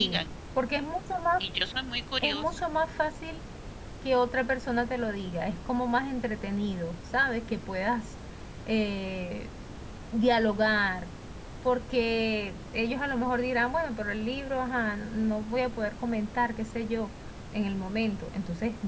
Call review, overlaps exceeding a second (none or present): none